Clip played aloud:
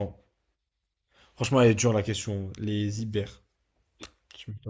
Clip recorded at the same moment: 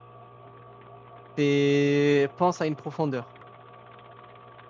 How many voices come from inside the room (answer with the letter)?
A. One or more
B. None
A